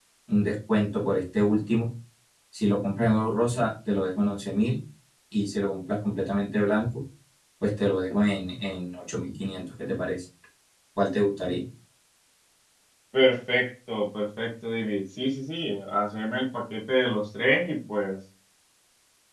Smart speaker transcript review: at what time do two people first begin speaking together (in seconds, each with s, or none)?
none